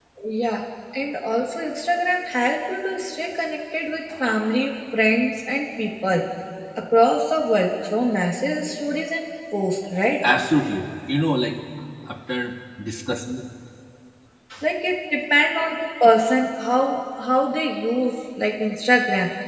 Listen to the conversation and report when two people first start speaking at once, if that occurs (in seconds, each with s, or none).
none